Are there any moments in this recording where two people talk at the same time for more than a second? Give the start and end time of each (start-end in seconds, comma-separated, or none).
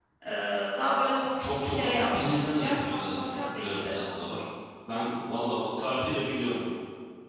1.4-4.1